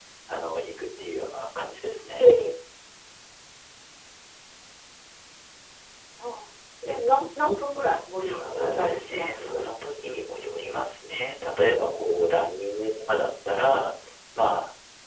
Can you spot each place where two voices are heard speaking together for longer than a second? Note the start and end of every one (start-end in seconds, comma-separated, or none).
8.2-9.7